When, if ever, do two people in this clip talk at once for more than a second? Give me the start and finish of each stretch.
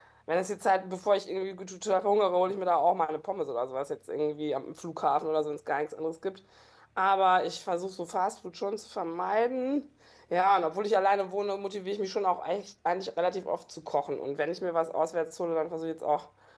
none

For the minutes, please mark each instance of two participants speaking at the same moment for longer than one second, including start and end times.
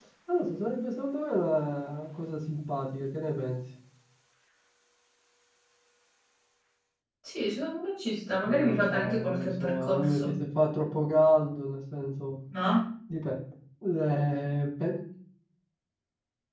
8.5-10.3

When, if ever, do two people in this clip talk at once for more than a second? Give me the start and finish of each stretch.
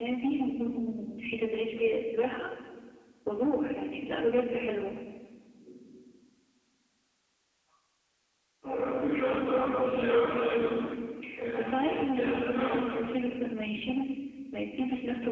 11.6-12.8

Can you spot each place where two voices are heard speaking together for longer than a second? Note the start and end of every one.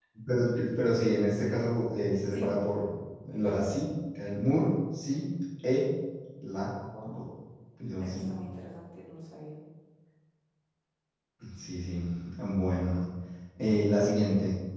none

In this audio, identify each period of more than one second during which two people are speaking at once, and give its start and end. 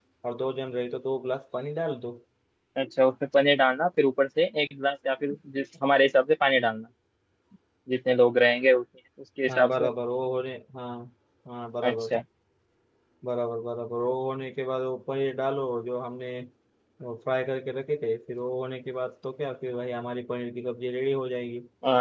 none

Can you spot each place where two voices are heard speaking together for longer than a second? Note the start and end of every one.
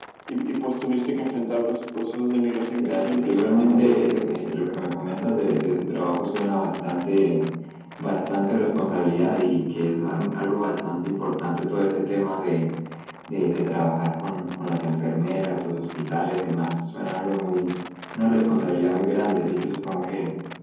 2.8-4.5

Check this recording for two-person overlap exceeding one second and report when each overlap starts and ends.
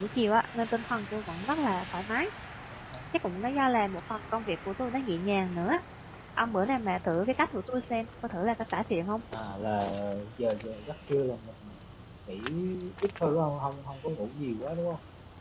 none

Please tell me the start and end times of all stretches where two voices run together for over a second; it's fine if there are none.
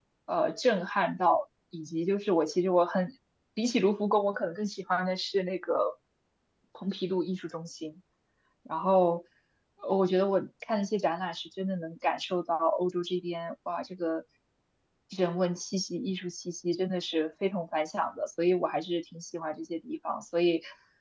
none

